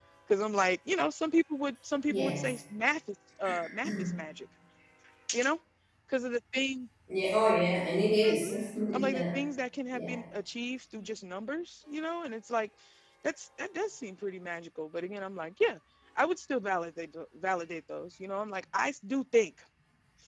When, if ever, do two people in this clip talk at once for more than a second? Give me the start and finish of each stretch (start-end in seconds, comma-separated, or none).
none